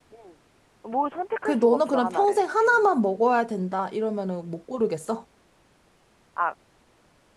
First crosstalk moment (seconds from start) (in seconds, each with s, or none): 1.4 s